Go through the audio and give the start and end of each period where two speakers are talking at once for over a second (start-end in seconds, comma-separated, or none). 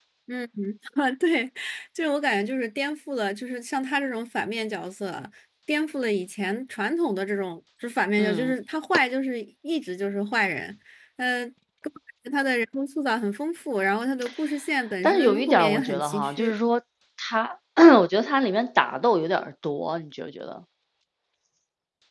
15.0-16.5